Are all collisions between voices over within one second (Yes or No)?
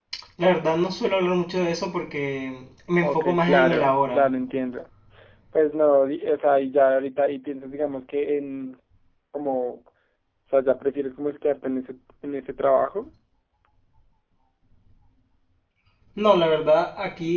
No